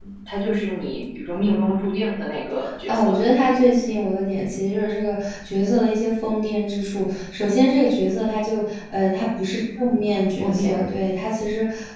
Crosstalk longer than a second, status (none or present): none